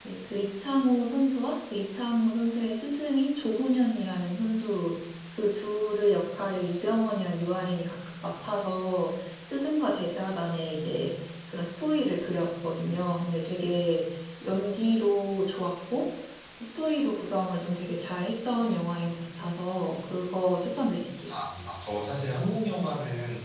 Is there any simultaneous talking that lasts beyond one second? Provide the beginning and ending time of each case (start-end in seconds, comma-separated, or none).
none